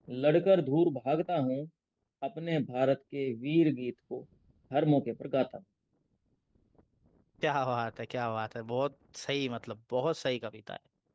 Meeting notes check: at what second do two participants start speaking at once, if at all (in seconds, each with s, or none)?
none